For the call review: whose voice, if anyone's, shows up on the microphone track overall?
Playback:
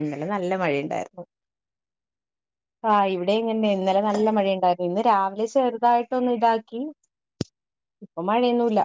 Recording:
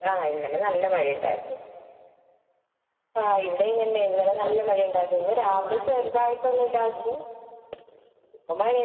both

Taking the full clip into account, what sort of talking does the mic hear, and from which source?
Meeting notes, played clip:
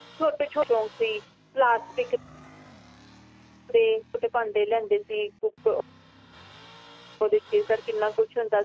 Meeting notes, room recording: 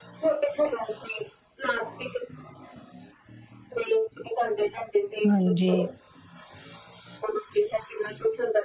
both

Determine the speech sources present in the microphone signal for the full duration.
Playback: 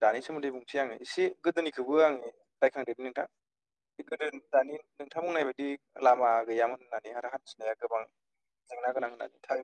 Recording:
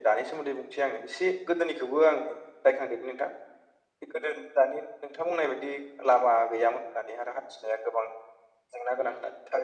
echo only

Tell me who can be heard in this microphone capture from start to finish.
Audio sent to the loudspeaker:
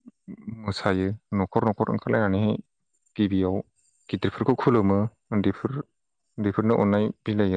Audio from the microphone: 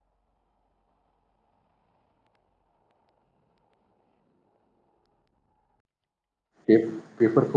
user only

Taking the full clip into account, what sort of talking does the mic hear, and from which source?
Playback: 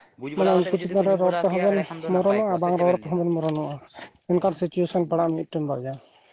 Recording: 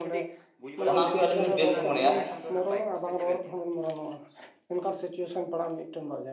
both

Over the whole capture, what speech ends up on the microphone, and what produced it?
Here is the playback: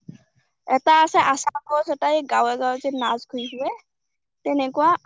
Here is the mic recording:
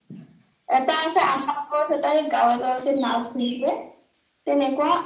echo only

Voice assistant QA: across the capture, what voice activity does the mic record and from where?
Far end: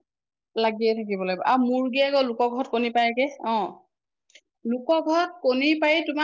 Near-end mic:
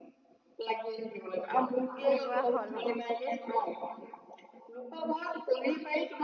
both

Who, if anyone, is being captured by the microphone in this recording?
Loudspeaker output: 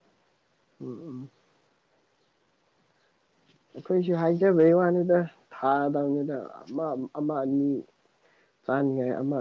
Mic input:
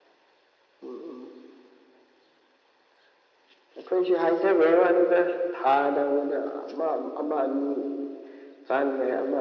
echo only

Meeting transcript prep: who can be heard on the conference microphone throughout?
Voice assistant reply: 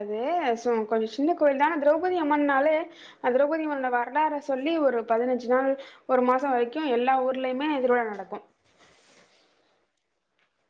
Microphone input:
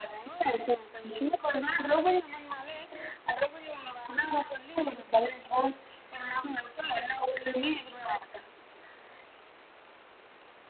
echo only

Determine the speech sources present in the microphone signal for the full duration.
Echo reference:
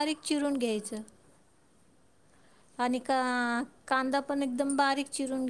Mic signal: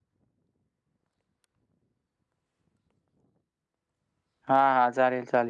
user only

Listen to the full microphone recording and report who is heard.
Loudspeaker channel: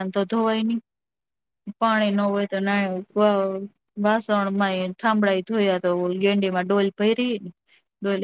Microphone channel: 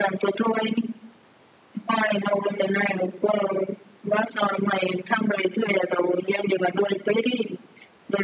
echo only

